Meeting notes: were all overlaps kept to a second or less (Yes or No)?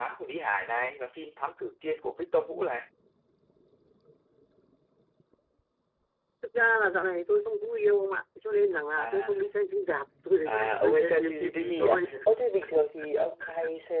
No